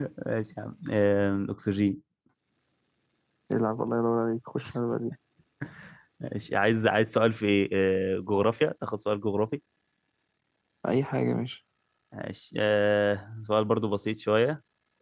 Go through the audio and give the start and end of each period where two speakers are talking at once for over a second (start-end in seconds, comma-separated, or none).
none